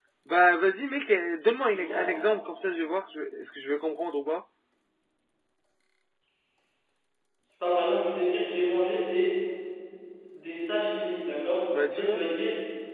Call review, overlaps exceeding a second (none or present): none